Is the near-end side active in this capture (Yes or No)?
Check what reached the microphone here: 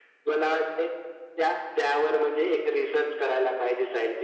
No